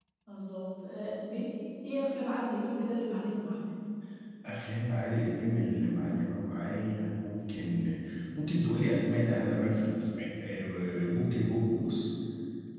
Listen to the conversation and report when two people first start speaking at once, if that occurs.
none

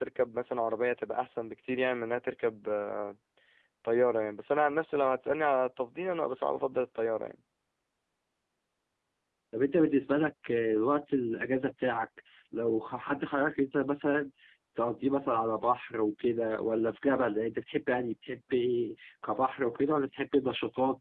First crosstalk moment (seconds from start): none

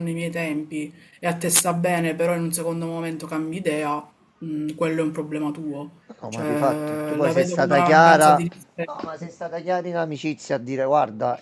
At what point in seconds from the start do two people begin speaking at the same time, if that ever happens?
6.2 s

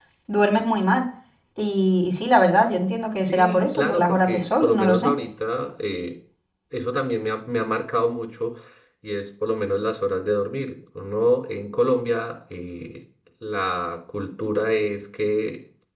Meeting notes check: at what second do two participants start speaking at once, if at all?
3.3 s

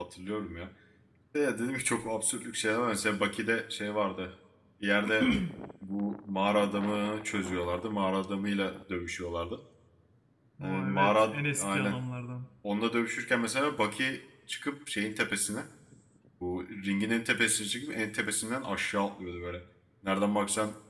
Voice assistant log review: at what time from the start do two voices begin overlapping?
10.6 s

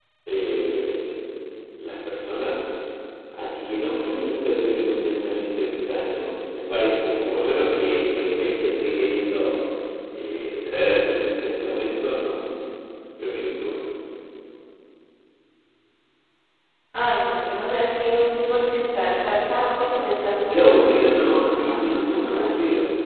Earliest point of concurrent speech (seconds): 20.5 s

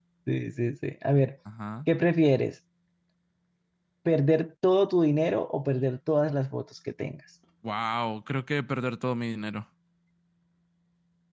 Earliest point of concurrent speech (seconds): none

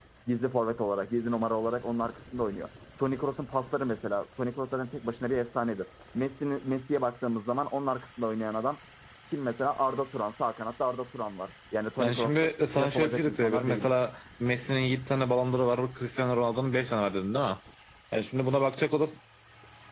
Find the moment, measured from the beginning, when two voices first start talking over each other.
12.0 s

